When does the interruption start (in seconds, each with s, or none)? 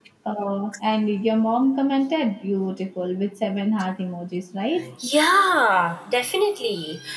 none